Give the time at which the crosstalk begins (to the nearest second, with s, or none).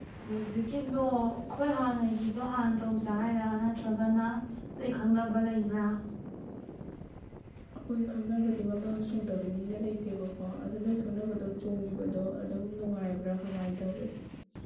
none